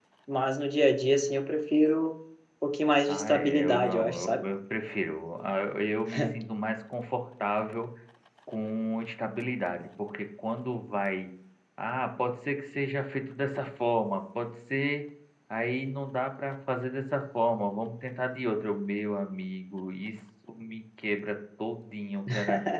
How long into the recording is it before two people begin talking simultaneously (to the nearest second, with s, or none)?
3 s